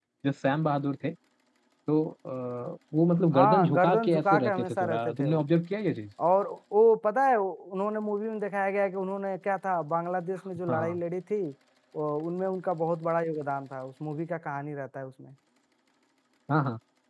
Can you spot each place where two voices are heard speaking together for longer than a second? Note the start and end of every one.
3.3-5.4

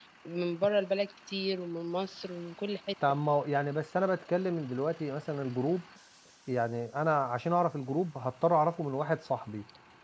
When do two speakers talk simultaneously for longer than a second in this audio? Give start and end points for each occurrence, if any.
none

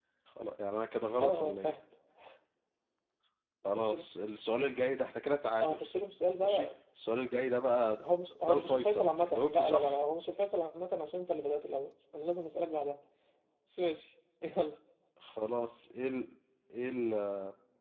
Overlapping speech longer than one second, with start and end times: 8.5-10.0

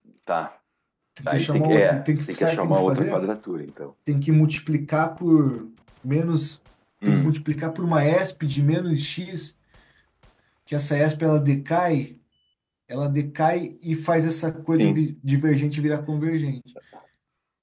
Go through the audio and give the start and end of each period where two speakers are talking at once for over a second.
1.3-3.2

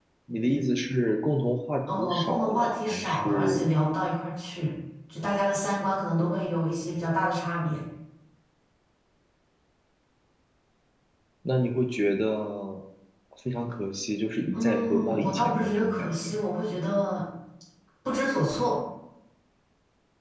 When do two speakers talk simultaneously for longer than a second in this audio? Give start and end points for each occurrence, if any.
2.0-3.7, 14.5-16.4

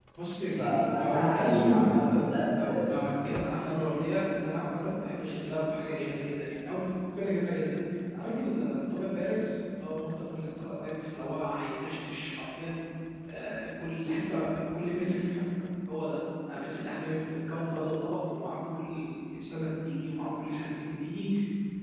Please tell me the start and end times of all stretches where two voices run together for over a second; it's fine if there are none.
0.6-2.9

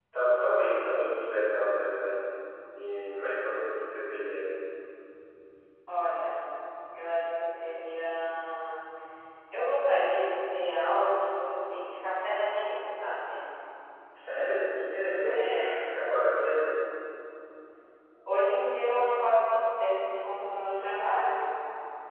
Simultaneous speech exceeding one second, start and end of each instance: none

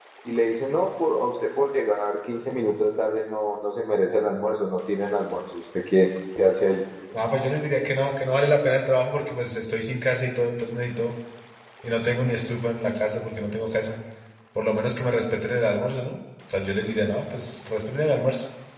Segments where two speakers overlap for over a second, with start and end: none

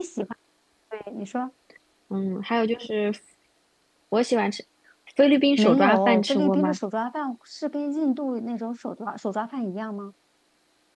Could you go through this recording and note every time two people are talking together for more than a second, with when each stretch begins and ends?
5.6-6.8

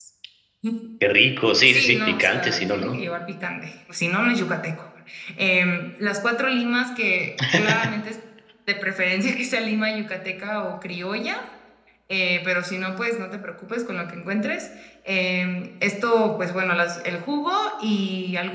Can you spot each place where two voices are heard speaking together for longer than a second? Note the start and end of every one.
1.7-3.0

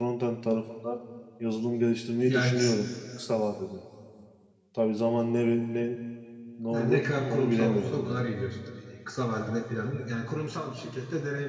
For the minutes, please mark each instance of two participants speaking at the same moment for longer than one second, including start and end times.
6.7-8.2

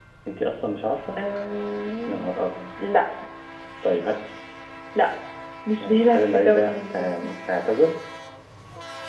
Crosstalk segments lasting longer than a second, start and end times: 5.8-7.3

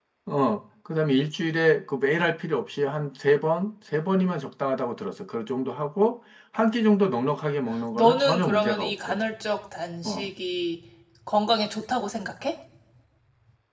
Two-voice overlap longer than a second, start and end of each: 7.9-9.2

